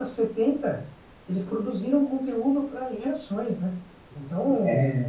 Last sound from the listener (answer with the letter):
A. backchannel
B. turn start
A